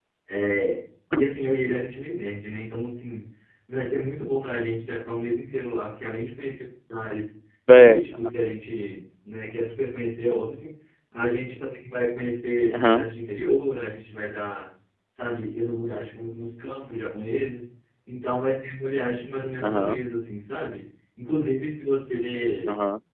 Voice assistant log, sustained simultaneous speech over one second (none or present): none